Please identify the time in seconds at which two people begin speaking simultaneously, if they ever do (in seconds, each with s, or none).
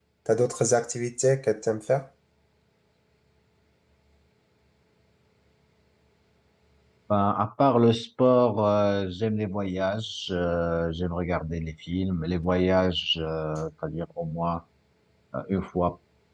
none